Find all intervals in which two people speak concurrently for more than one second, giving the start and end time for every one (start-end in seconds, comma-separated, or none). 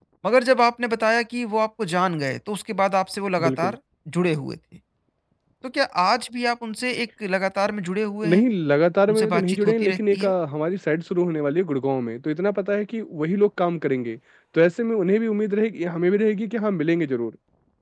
9.1-10.3